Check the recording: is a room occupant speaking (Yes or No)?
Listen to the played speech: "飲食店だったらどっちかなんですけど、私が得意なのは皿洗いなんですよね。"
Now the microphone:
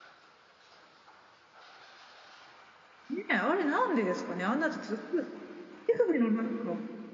Yes